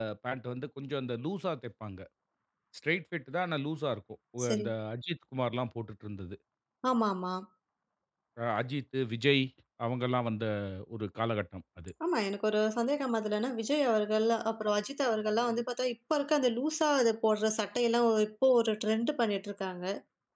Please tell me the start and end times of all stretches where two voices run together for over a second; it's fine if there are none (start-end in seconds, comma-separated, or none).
none